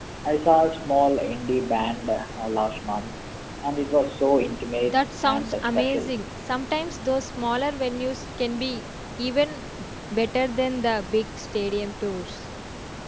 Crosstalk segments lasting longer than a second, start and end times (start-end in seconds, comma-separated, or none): 4.8-6.1